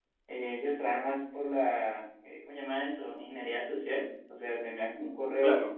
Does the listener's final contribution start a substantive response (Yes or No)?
No